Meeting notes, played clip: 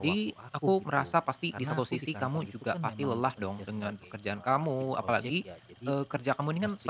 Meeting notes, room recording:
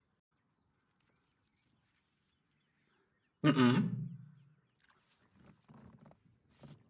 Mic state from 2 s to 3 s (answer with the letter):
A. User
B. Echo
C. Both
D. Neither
D